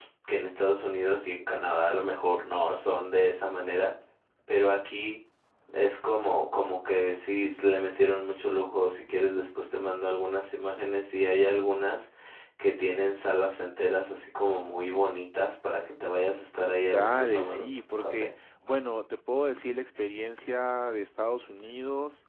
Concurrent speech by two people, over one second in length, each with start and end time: 16.8-18.3

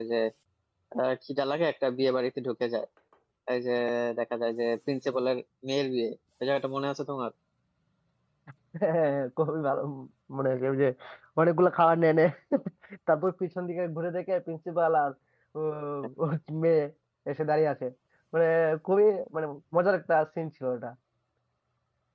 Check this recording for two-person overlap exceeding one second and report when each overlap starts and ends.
none

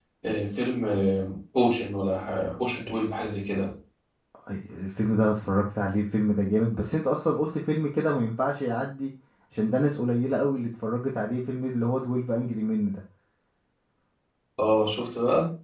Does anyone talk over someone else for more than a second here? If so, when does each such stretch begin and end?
none

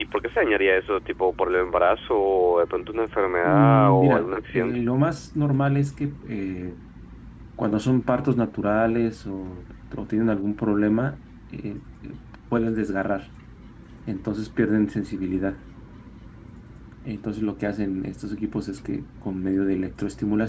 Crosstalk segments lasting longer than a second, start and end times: 3.4-4.8

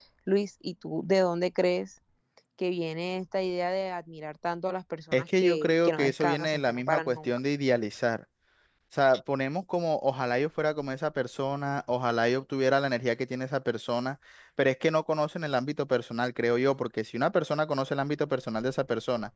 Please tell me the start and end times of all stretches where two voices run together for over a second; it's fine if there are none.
5.1-7.3

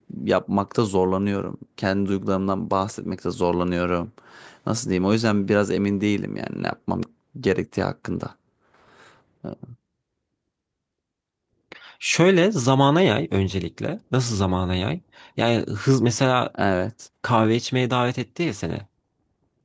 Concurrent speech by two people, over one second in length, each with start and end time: none

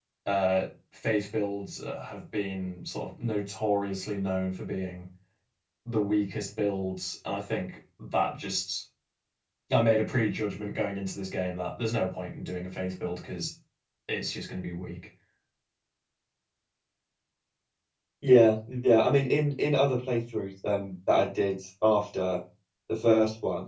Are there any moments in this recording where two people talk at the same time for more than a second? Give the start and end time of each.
none

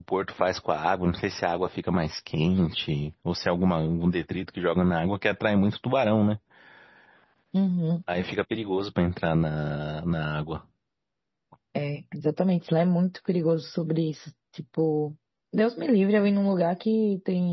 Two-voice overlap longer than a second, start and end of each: none

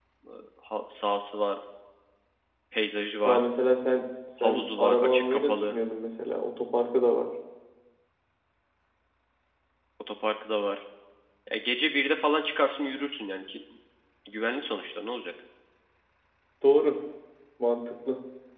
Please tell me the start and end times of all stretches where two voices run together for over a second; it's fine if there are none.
4.4-5.8

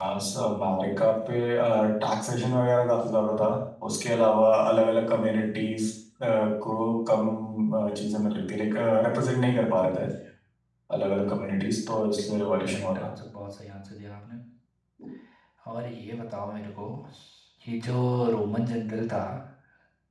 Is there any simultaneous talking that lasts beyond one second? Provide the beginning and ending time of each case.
none

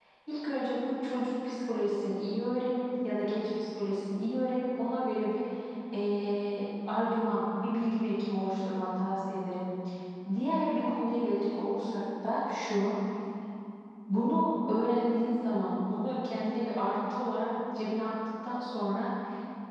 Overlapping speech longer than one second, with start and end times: none

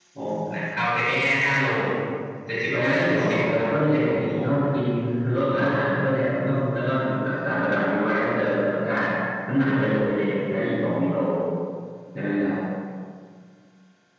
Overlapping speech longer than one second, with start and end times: 2.7-4.5

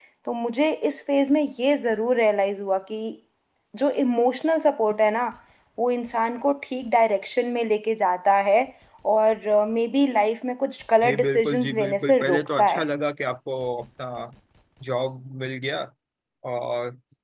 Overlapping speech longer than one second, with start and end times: 11.0-12.8

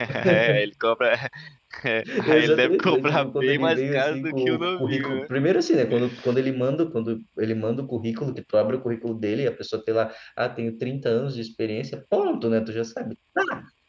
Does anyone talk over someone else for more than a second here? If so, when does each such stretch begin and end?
2.2-5.3

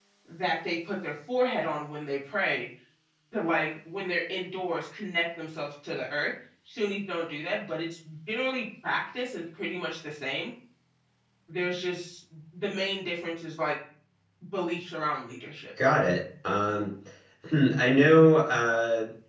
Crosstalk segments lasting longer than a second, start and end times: none

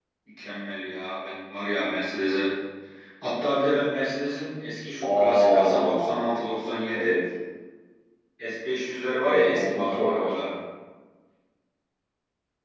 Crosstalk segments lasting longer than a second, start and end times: 5.0-6.2, 9.2-10.6

